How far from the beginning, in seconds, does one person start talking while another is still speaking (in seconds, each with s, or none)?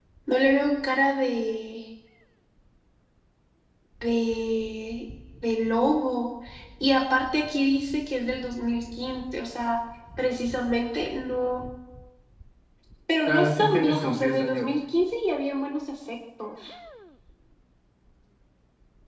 13.3 s